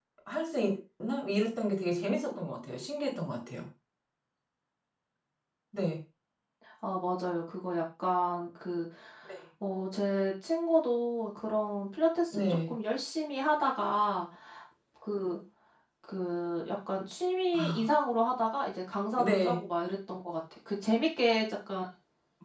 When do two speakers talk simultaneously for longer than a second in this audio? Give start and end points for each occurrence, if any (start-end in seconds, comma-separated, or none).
none